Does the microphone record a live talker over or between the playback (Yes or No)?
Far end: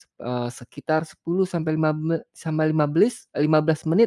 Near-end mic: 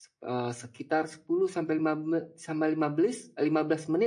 No